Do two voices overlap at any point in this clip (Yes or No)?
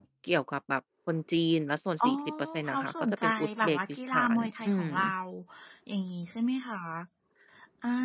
Yes